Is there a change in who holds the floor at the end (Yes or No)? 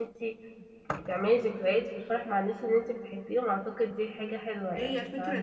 Yes